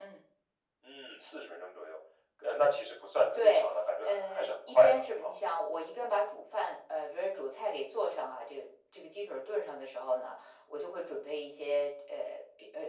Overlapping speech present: Yes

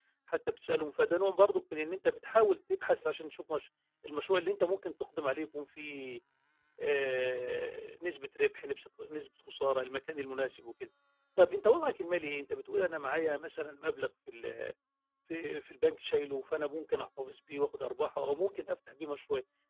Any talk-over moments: No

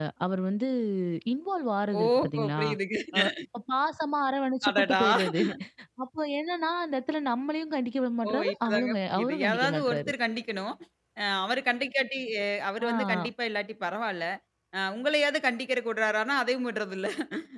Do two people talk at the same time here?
Yes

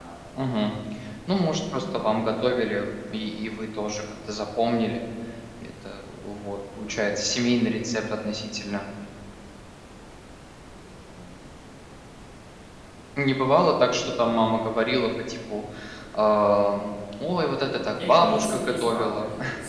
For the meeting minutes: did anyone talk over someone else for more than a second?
Yes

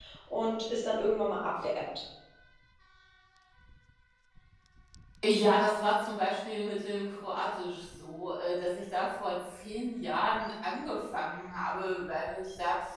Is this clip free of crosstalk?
Yes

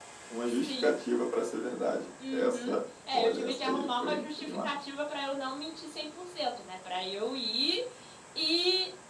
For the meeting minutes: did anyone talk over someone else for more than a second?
Yes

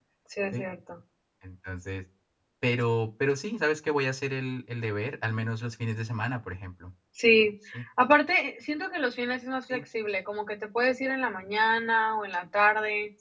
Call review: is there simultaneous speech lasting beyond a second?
No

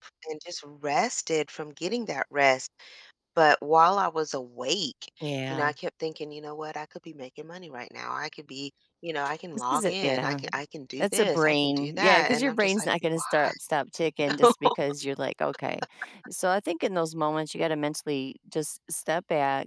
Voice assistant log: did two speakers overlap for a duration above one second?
Yes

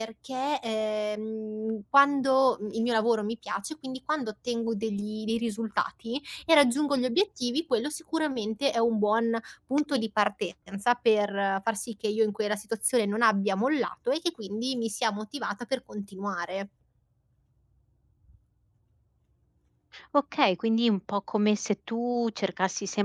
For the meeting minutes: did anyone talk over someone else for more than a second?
No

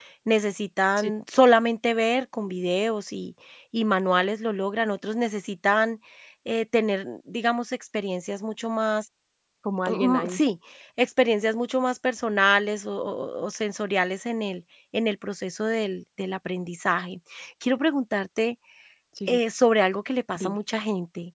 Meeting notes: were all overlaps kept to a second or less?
Yes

